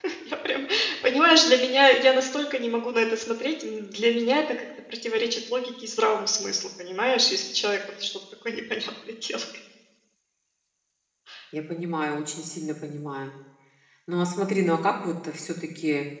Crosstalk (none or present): none